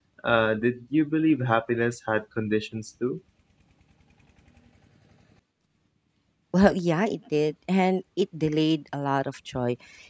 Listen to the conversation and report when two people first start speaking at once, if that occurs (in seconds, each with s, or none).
none